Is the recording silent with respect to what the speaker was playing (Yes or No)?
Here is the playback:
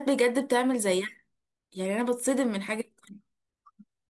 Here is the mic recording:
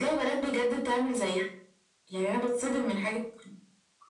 No